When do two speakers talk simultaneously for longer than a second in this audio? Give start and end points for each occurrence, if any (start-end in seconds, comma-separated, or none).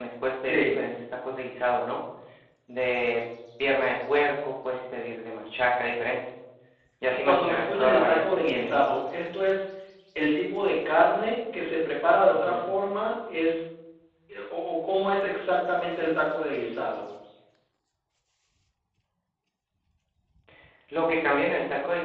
7.2-8.9